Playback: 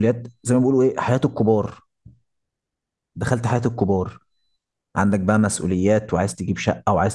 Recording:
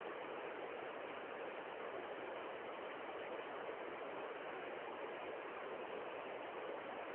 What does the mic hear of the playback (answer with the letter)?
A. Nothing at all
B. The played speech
A